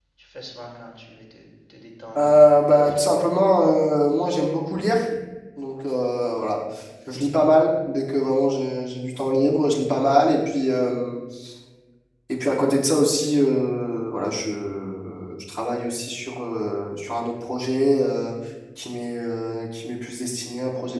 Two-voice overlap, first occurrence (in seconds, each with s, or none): 2.2 s